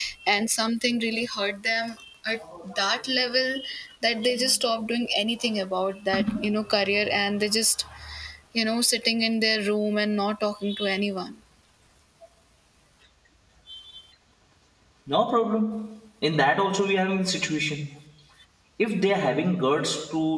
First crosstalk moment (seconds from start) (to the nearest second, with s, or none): none